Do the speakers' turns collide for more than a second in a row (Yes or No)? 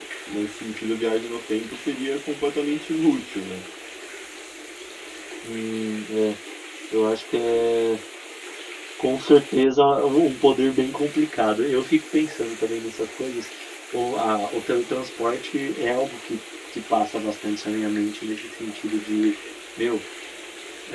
No